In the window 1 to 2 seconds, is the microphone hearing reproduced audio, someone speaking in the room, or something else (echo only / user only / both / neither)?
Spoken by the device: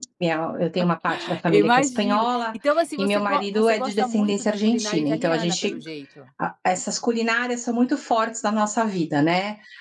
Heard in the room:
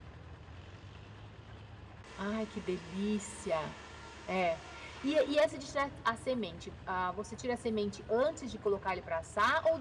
neither